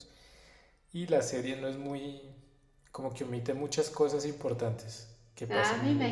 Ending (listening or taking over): taking over